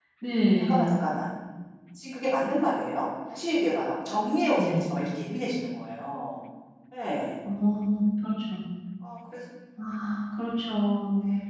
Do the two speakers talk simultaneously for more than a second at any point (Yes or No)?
No